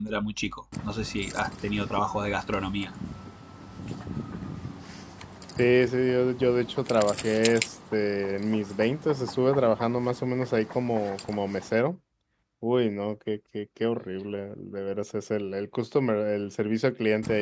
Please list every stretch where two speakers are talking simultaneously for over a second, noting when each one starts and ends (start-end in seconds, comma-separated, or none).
none